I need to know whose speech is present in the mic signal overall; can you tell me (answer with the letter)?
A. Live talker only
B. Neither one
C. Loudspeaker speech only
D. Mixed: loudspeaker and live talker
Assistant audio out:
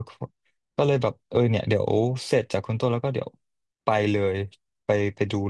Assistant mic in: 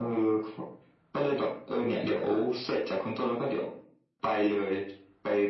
C